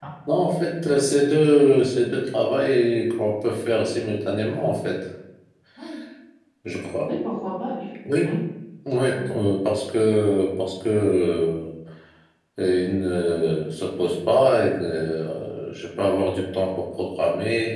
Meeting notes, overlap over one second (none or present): none